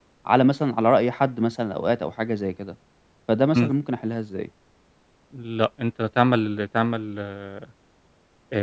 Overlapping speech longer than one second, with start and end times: none

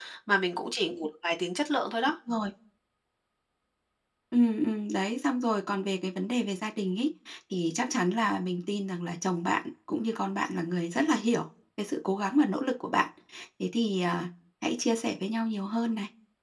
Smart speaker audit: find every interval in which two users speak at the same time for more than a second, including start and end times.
none

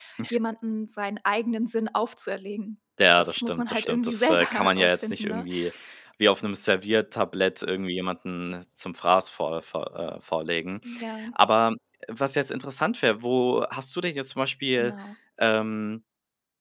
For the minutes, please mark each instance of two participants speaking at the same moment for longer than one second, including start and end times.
3.2-5.5

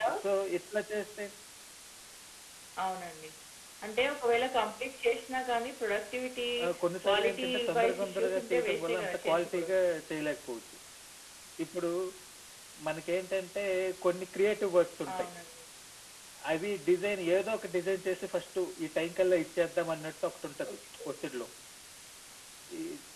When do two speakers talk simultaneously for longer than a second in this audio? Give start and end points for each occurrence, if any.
7.0-9.7

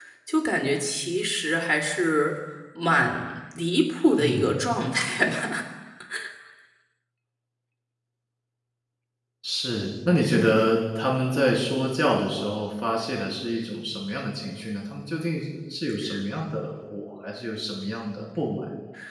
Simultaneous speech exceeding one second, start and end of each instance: none

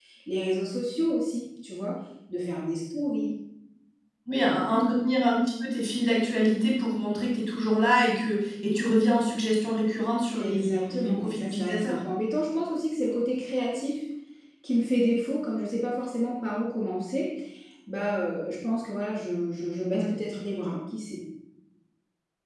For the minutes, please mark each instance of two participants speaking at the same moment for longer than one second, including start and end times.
10.4-11.9

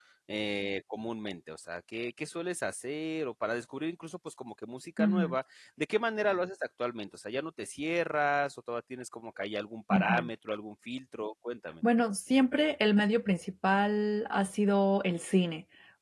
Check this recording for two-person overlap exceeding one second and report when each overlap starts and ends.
none

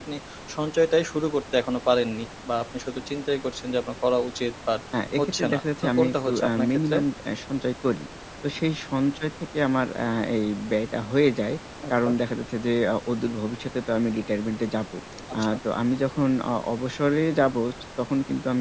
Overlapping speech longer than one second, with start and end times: 5.2-7.0

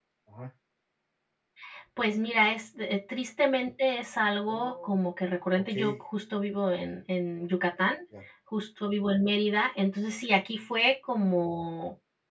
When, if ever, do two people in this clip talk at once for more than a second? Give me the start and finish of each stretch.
none

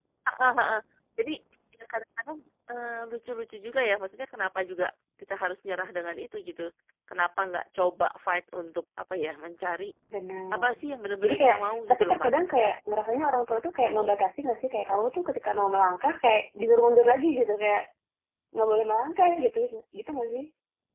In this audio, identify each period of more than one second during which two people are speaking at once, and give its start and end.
11.2-12.5

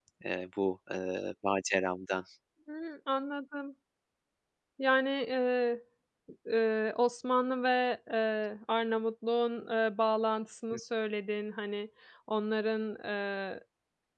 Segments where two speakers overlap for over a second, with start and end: none

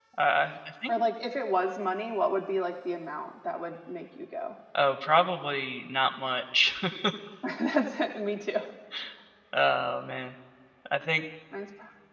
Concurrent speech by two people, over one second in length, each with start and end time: none

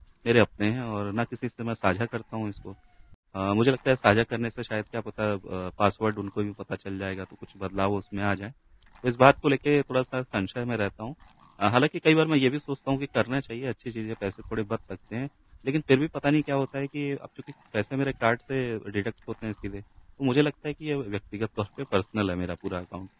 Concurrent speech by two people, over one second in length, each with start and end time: none

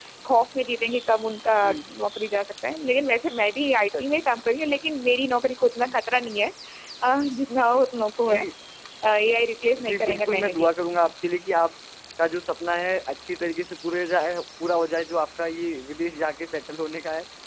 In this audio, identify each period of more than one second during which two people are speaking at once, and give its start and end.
9.8-11.1

